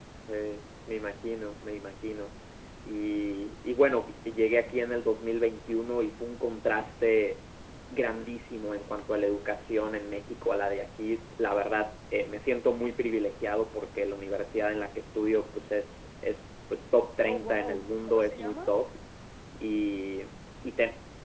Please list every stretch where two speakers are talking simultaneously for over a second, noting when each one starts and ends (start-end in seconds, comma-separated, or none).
17.2-18.7